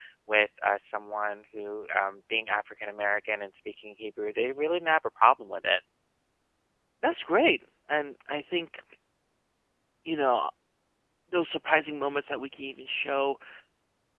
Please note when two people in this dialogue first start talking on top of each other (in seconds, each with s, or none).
none